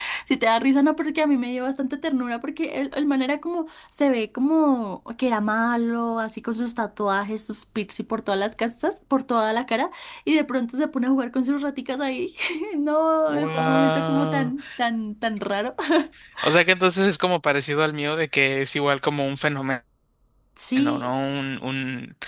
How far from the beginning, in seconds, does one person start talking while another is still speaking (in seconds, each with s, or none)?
13.3 s